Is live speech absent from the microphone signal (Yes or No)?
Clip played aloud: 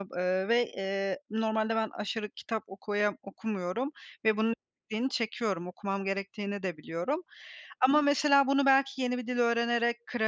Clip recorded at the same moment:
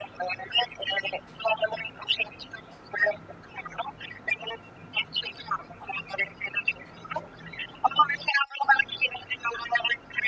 Yes